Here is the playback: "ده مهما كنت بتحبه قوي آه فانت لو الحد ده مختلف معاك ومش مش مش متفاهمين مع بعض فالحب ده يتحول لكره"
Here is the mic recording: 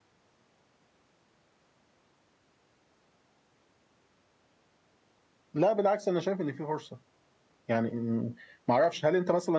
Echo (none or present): none